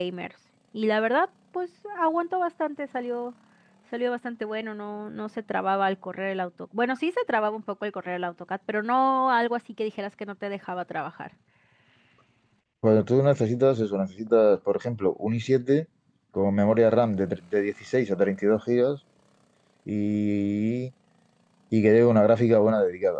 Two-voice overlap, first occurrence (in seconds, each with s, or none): none